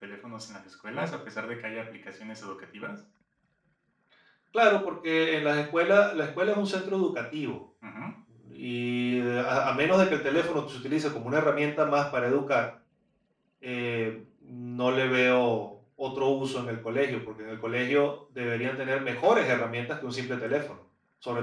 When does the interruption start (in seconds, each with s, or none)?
none